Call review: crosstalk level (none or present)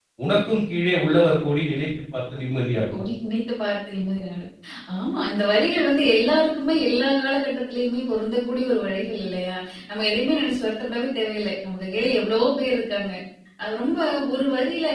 none